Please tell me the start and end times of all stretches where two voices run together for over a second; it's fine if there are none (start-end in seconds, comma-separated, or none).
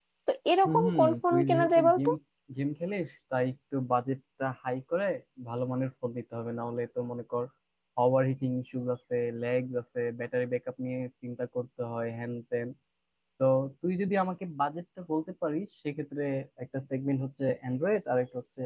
0.6-2.1